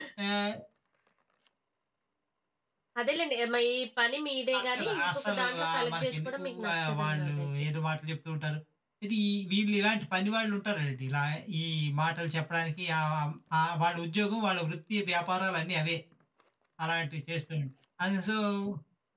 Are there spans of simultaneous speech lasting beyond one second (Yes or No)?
Yes